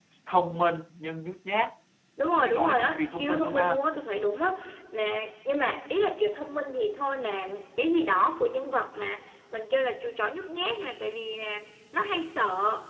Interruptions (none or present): present